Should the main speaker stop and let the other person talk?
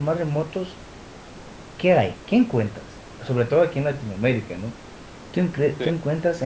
No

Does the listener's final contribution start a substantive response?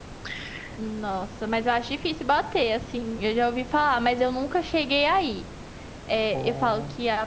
No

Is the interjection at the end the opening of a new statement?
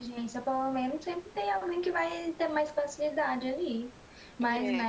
No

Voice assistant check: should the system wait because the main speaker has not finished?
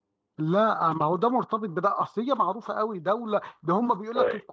Yes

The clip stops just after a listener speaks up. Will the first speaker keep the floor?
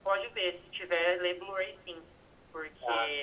Yes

